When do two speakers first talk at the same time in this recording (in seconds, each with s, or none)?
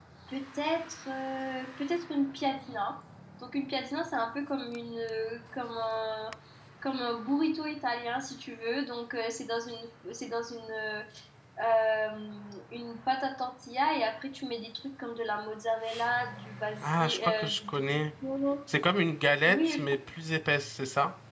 16.8 s